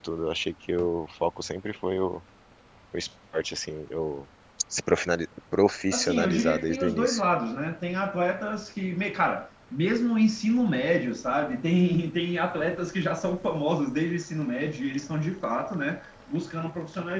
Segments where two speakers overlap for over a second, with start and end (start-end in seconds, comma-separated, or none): 5.9-7.2